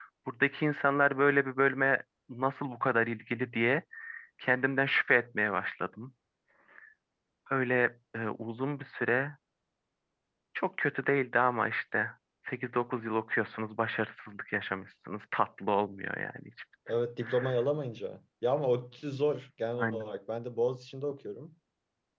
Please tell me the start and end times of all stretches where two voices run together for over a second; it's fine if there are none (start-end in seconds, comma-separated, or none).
none